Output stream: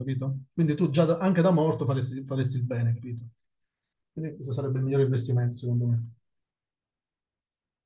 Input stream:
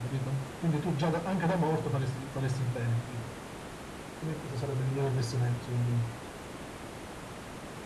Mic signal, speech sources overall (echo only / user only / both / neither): echo only